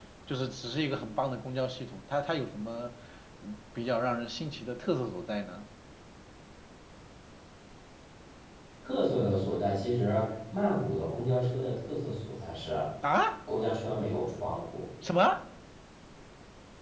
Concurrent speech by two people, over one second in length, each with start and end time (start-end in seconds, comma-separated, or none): none